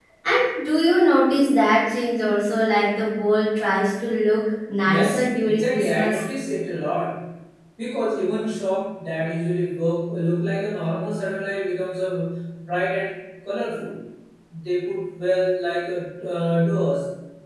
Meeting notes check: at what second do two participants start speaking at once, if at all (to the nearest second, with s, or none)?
5 s